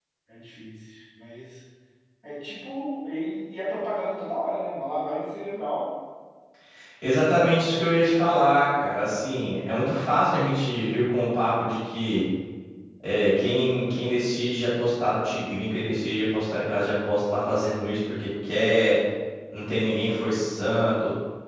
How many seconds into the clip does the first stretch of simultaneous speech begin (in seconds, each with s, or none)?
none